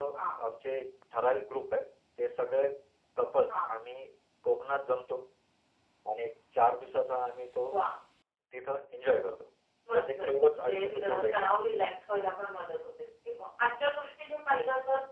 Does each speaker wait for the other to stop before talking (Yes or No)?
No